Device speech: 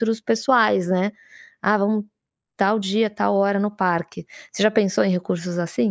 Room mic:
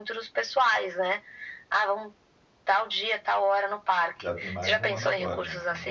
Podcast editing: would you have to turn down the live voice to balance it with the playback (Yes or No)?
No